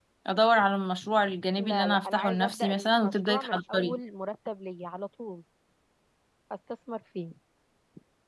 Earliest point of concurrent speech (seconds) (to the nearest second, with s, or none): 2 s